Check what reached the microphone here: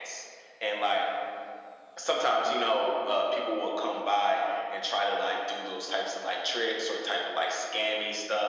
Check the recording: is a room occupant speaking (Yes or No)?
No